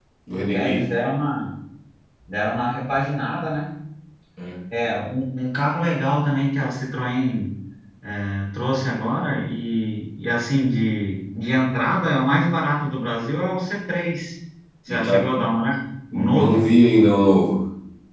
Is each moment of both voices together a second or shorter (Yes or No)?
Yes